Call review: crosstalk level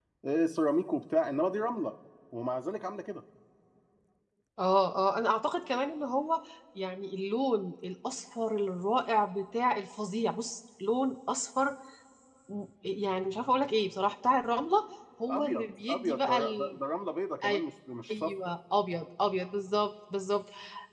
present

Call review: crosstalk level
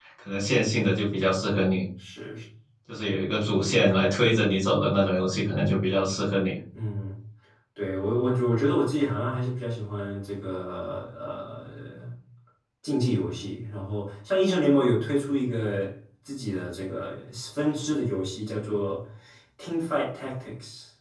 none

